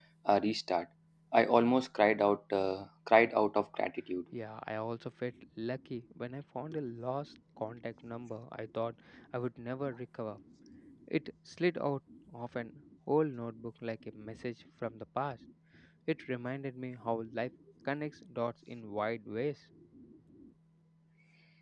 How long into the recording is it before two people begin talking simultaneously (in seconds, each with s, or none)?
none